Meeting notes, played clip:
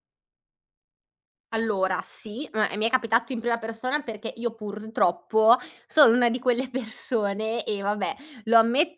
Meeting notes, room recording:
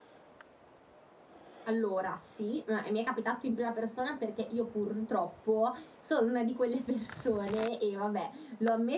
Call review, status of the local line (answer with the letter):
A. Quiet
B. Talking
A